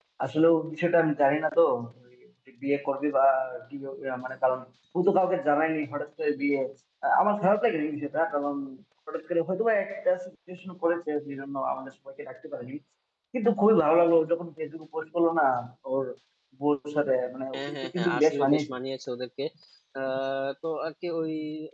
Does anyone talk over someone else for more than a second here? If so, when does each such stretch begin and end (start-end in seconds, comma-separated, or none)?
17.5-18.8